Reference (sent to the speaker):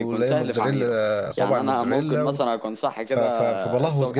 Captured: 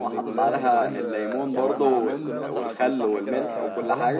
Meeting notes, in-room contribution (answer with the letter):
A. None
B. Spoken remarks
B